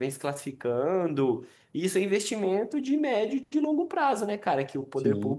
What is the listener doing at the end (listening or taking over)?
listening